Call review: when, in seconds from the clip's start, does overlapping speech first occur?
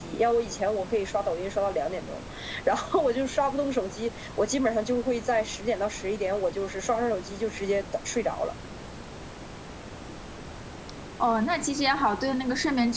none

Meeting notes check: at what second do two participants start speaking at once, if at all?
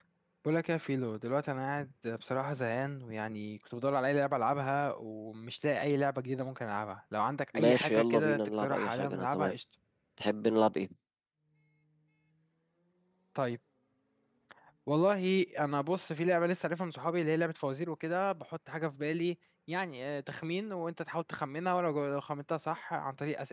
7.5 s

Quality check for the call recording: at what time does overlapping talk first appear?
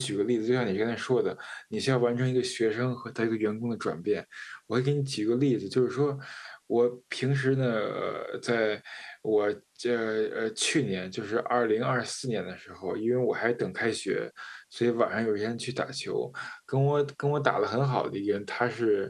none

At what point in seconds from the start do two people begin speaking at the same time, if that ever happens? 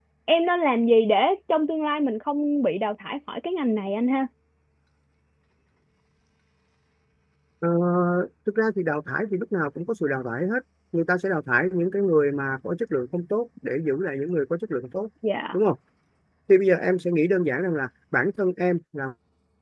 none

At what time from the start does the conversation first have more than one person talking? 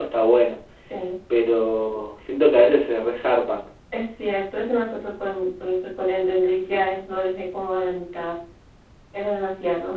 none

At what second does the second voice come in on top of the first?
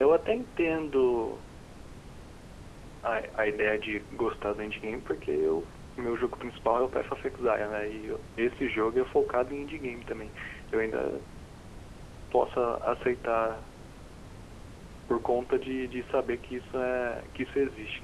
none

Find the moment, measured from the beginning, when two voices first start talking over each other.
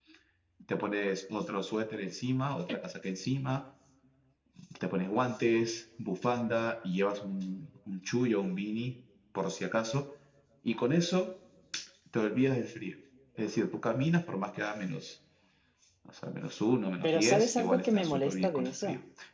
17.0 s

